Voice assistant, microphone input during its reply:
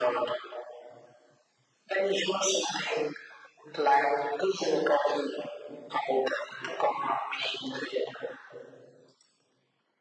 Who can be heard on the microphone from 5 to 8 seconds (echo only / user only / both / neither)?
echo only